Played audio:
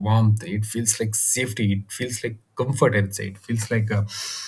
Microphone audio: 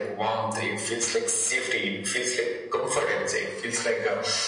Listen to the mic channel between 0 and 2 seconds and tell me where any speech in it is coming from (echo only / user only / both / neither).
echo only